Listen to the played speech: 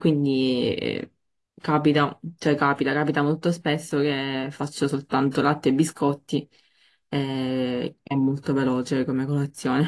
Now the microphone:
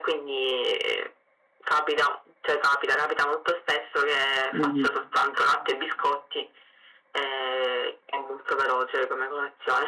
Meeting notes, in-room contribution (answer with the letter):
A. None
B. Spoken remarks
B